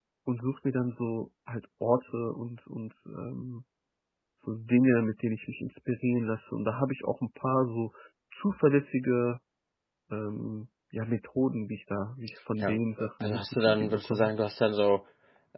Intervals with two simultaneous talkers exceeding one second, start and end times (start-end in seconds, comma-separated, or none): 12.6-14.3